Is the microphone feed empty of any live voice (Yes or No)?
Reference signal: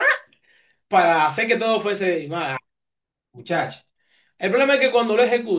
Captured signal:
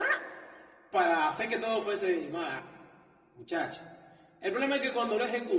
Yes